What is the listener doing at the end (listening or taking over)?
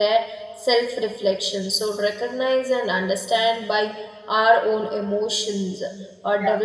listening